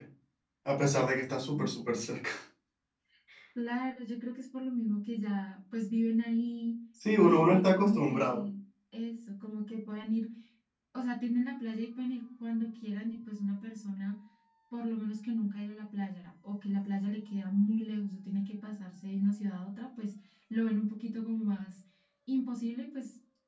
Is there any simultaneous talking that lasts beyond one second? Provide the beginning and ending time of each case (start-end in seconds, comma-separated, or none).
7.2-8.4